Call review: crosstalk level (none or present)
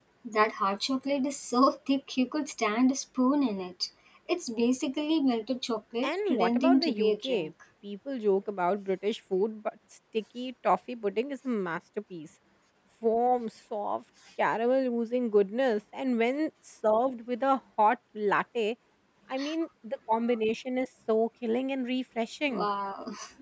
present